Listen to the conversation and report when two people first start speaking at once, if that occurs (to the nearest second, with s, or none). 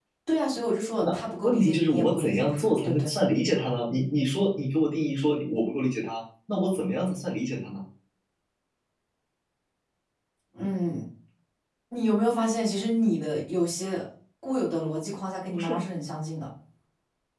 1 s